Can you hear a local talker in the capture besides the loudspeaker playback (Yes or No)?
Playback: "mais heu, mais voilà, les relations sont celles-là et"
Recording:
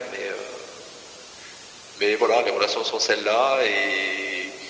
No